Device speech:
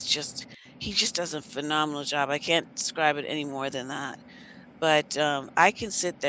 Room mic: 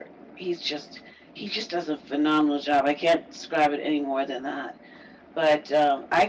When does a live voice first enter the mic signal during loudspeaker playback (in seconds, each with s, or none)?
none